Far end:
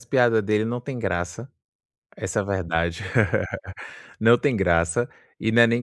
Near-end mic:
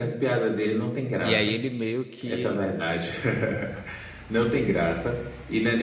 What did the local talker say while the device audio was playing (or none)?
E aí ele meio que